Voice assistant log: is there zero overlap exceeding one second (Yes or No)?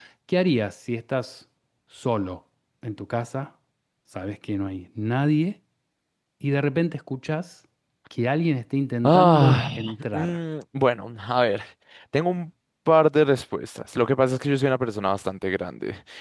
No